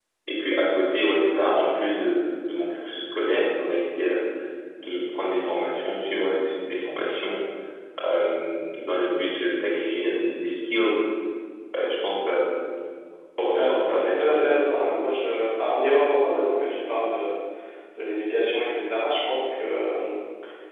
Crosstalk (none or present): present